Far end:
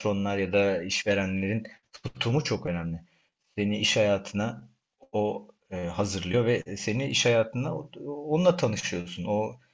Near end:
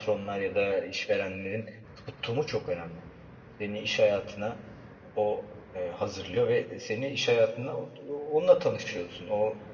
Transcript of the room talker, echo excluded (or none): none